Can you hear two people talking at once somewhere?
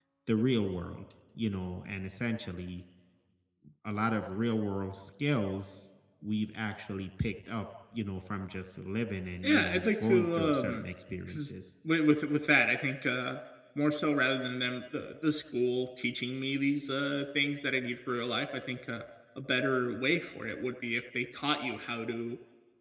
Yes, from 9.4 s

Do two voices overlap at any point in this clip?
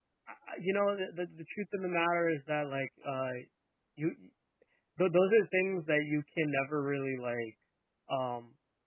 No

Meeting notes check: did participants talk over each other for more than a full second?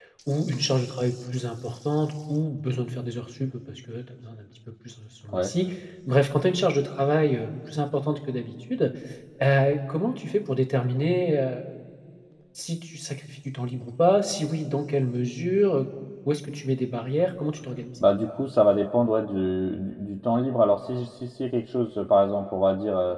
No

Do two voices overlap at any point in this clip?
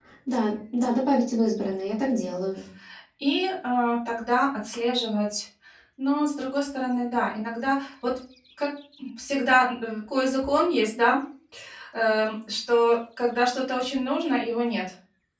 No

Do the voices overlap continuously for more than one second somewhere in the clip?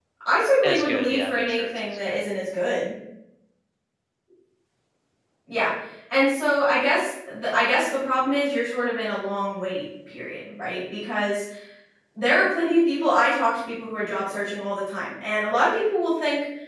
Yes, from 0.6 s

